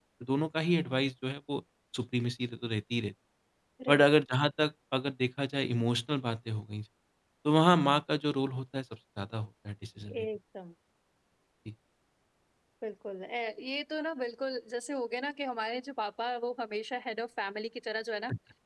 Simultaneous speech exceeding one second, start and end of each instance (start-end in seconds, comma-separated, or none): none